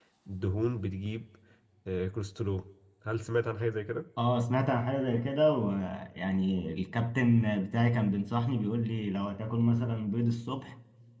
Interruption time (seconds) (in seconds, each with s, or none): none